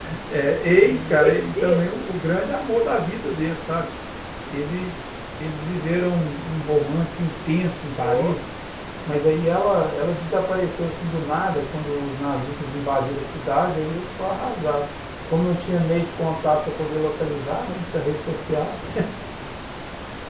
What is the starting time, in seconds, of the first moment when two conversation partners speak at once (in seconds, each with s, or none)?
0.7 s